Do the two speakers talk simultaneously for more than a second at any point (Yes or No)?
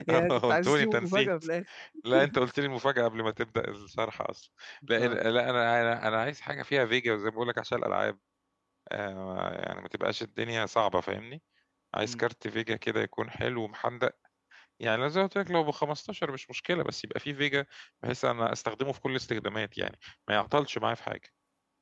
Yes